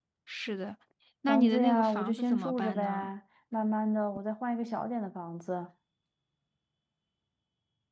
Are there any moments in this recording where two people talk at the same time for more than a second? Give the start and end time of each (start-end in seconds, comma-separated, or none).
1.3-3.1